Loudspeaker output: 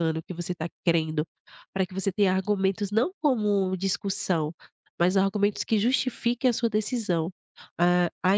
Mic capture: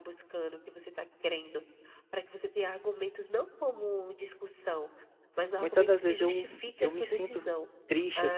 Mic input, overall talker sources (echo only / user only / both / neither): both